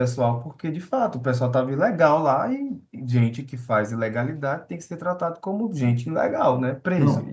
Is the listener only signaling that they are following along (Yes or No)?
No